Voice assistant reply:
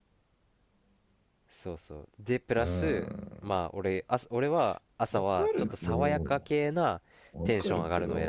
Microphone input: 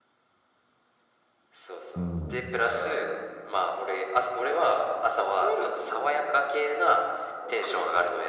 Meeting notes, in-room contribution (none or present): present